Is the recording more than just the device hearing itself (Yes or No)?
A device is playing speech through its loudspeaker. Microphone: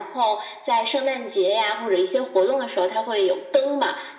No